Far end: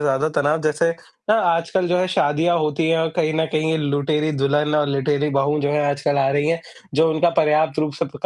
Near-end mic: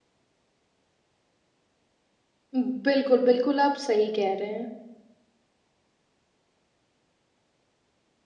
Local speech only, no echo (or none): हुँ, बिल्कुल, बिल्कुल, आप सही कह रहे हैं।